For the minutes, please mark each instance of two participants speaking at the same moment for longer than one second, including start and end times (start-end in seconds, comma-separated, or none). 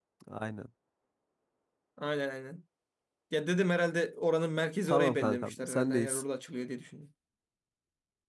4.9-6.2